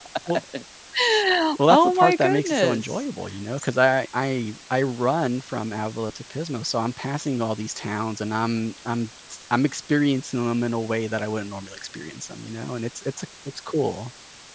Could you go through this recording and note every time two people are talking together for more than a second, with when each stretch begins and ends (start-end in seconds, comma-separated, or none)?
1.7-2.9